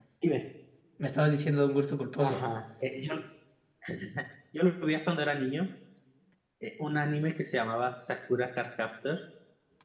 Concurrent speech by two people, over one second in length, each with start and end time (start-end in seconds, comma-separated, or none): none